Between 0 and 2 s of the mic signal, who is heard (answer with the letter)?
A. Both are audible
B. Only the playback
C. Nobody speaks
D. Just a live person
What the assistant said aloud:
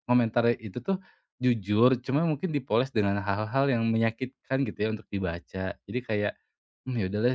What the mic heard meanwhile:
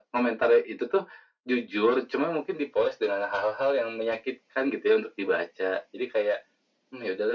B